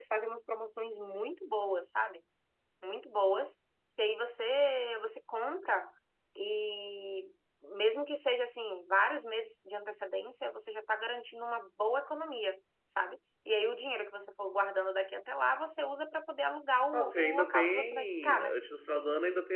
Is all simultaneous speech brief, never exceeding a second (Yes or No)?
No